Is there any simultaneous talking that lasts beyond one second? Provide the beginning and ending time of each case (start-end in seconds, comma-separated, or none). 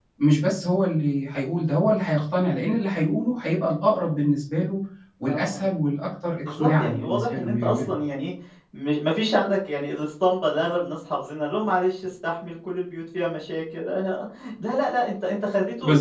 6.4-8.0